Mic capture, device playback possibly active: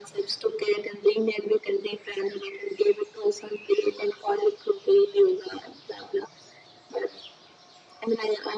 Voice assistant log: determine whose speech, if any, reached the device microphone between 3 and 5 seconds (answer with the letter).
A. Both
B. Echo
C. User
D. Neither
B